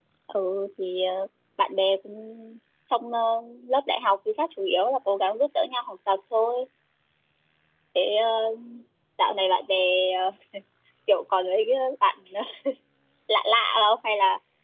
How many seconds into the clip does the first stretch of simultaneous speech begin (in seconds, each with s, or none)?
none